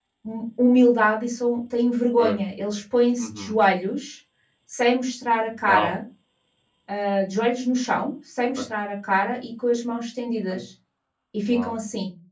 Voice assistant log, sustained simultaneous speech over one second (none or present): none